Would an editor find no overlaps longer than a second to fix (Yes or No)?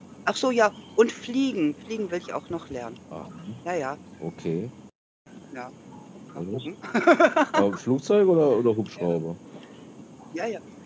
Yes